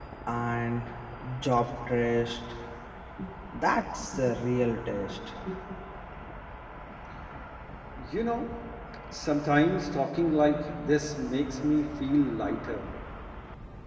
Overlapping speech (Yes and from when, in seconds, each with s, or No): No